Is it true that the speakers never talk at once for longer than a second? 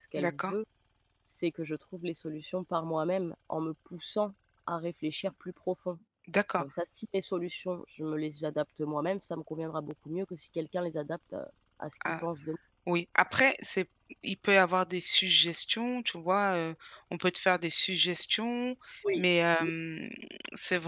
Yes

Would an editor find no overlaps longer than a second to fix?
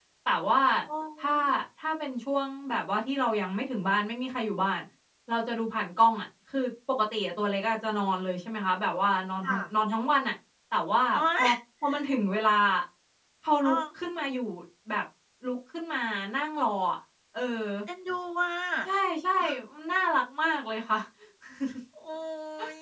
Yes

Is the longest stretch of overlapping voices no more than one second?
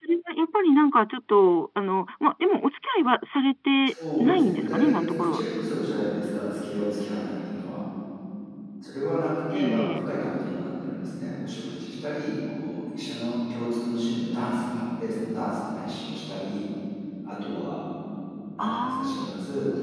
No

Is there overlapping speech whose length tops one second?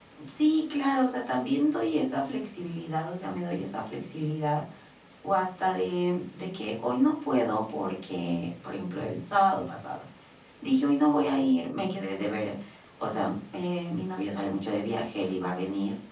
No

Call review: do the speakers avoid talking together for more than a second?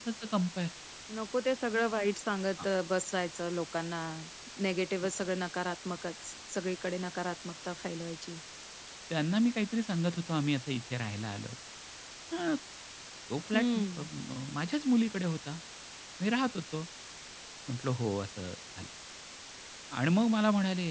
Yes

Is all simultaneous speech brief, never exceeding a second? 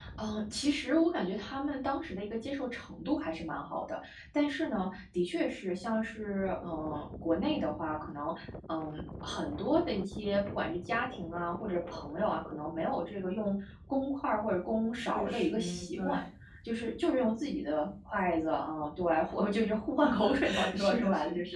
No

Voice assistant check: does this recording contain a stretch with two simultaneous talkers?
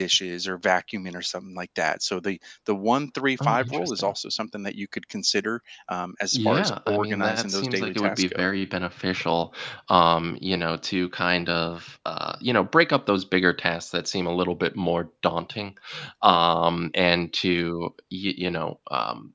Yes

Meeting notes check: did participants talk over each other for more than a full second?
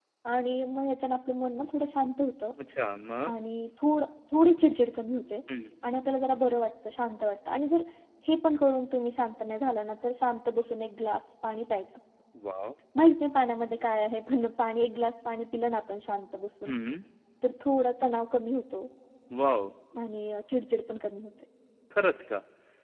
No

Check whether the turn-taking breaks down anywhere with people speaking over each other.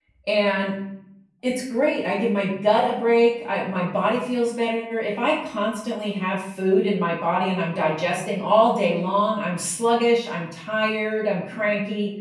No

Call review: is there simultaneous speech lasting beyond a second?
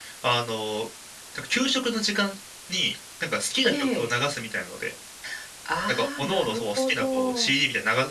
Yes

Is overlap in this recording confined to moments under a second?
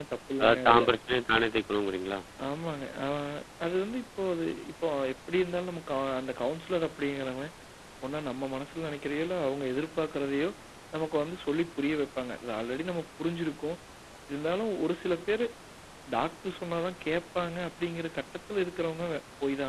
Yes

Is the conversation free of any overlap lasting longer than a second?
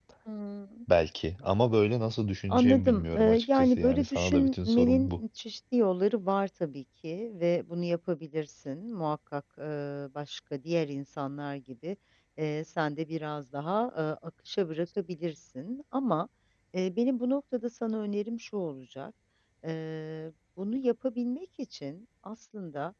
No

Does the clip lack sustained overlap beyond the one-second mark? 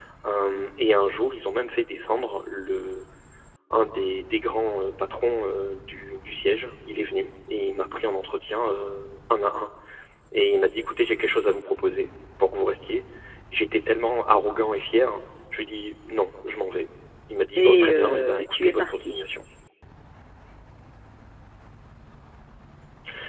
No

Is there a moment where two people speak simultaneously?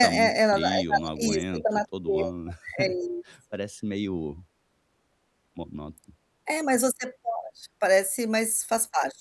Yes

